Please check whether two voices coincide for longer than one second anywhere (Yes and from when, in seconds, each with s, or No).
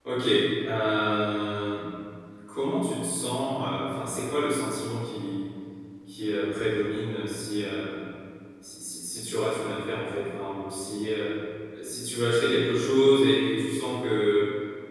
No